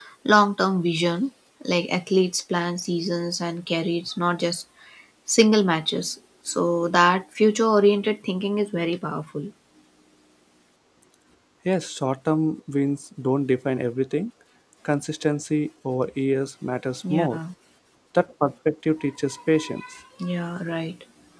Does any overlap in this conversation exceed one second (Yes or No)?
No